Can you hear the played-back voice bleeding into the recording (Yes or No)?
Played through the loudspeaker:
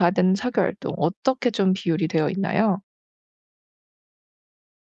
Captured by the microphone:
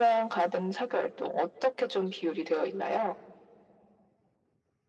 Yes